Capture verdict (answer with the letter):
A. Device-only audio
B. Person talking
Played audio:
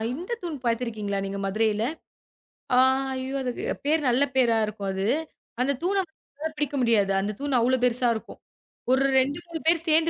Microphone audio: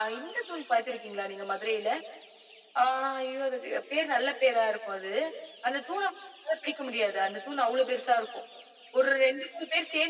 A